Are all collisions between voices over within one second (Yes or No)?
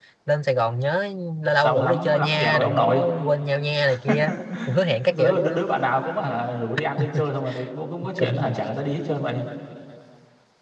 No